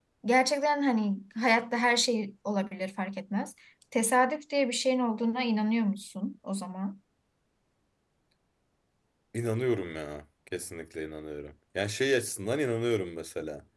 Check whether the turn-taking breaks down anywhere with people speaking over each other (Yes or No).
No